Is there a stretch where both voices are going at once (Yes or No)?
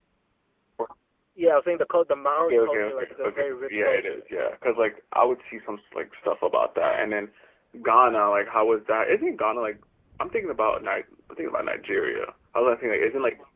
Yes